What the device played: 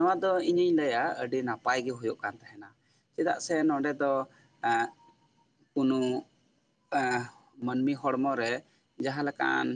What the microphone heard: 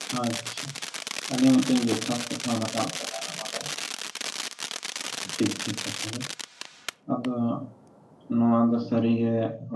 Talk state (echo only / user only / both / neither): user only